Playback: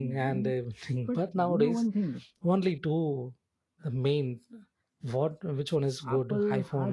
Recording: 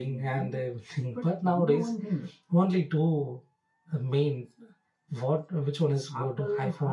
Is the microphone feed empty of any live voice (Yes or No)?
Yes